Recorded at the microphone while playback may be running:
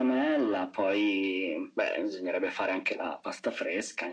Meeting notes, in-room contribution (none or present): none